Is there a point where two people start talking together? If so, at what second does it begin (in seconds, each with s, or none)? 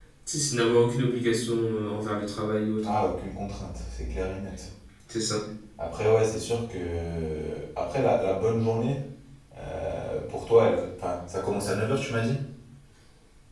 none